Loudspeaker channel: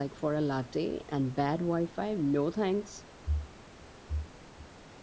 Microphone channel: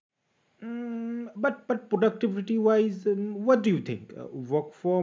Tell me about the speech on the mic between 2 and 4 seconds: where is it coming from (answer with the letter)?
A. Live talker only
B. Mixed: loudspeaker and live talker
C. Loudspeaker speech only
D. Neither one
A